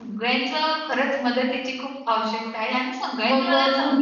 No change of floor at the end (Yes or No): No